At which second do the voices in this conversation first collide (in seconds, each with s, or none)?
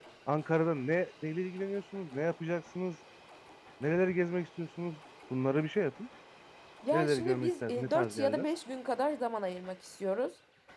6.9 s